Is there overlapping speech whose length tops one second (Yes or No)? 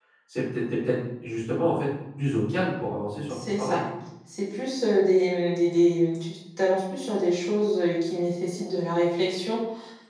No